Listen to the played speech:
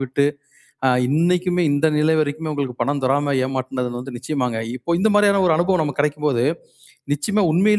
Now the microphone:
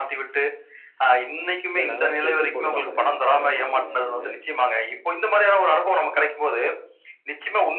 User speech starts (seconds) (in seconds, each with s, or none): 1.7 s